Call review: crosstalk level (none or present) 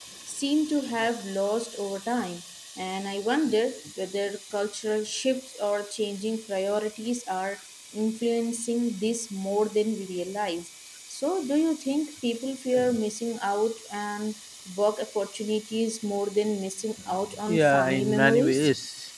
present